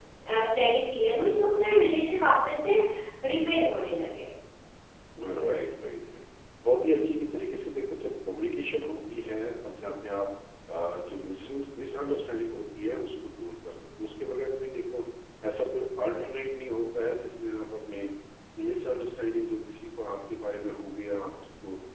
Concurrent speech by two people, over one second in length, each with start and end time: none

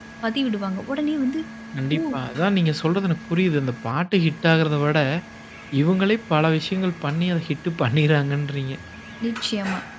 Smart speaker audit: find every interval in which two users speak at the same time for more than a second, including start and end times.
none

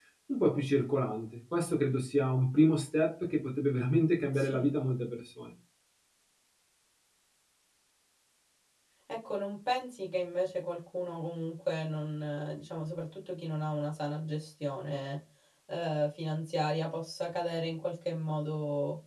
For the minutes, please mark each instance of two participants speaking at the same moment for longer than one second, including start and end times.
none

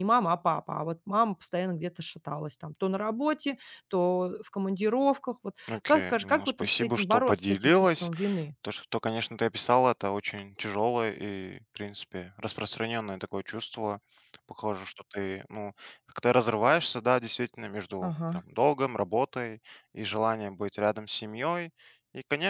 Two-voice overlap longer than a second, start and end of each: 5.7-8.1

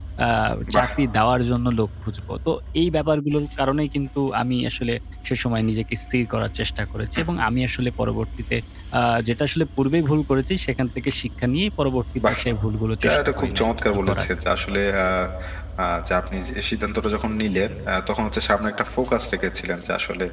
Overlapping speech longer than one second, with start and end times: 13.0-14.3

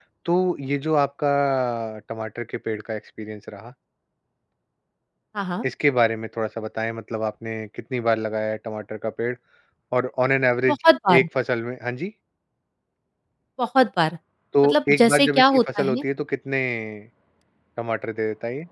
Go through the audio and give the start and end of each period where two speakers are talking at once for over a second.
14.6-16.0

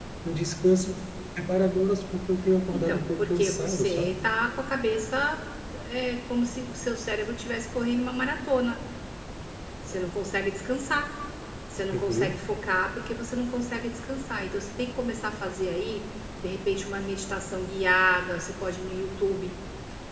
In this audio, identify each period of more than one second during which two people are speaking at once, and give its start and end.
2.7-4.2

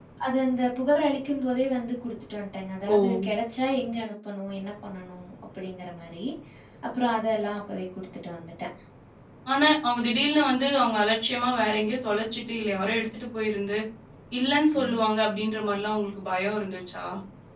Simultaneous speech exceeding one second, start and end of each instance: none

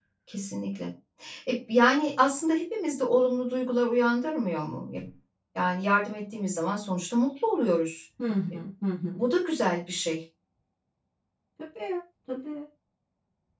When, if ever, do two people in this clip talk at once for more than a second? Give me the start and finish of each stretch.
none

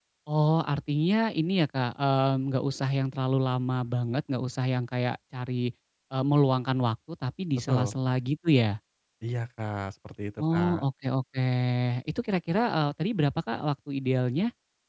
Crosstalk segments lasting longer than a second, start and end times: none

